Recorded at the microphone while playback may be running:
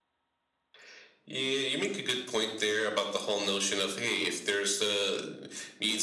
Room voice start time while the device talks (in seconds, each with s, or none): none